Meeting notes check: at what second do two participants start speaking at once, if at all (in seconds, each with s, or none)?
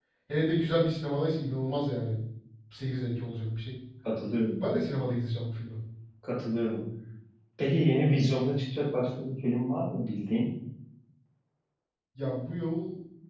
none